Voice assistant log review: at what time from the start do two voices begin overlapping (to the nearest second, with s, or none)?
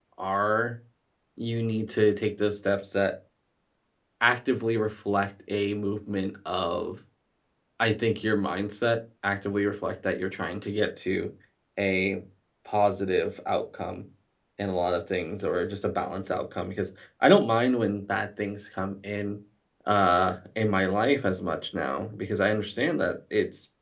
none